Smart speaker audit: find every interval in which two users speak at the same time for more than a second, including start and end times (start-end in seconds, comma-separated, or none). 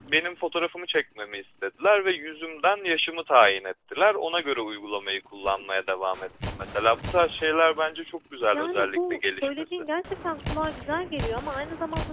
8.4-9.8